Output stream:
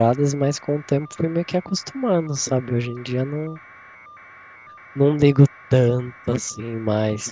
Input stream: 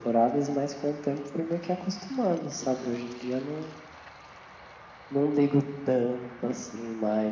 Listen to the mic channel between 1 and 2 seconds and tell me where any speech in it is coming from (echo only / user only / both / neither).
echo only